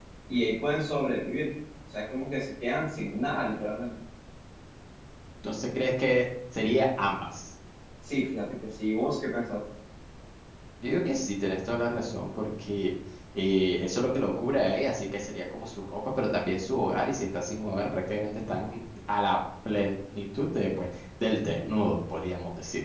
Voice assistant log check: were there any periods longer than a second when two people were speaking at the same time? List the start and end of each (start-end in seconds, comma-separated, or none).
none